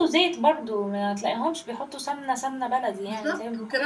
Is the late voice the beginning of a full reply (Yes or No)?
Yes